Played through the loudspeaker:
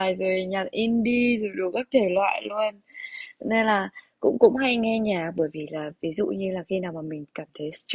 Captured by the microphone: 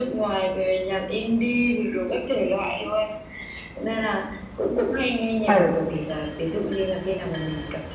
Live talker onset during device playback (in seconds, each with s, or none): 5.4 s